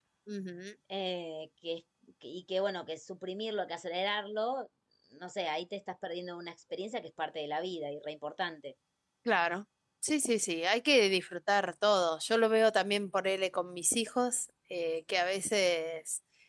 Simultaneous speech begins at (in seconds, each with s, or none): none